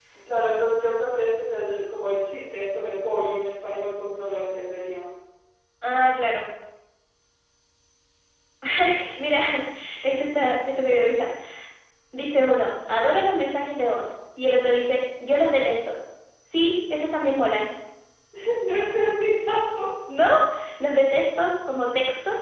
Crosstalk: none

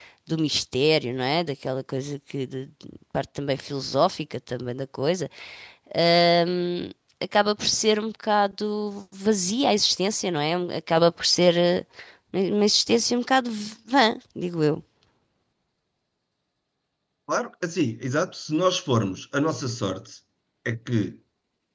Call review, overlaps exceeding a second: none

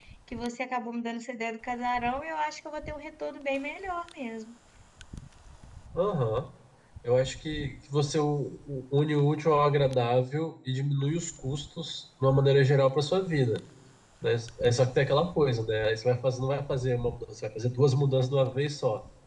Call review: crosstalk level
none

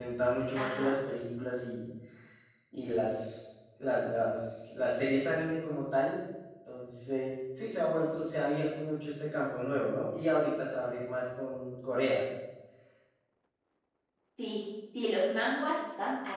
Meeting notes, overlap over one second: none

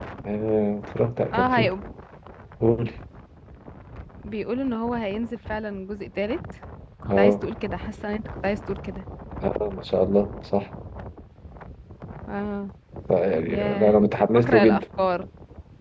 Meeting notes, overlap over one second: present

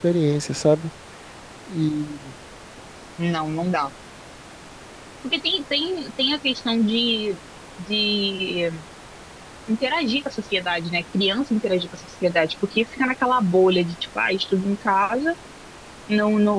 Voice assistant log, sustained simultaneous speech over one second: none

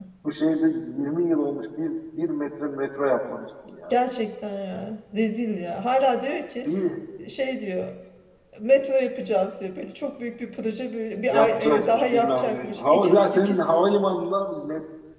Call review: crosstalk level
present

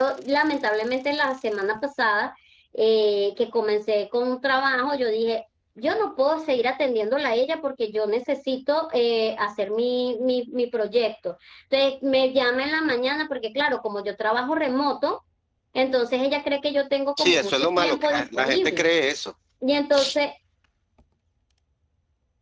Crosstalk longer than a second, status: present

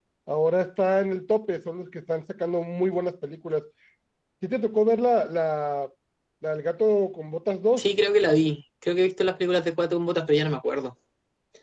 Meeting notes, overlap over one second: none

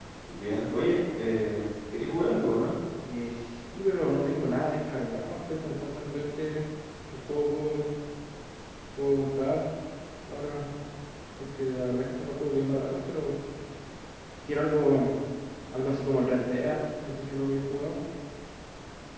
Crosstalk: none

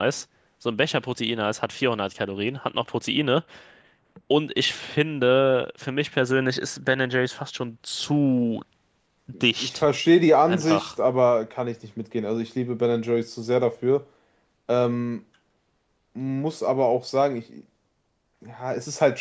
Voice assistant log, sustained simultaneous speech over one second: none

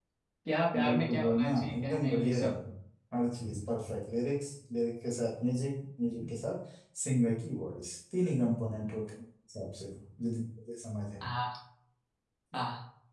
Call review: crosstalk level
present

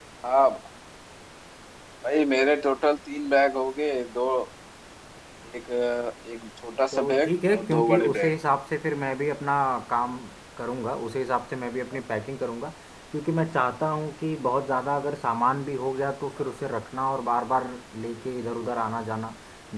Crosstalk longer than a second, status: present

